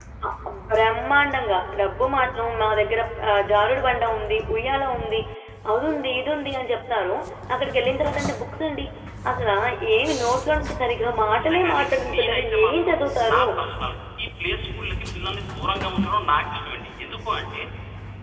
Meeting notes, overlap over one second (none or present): present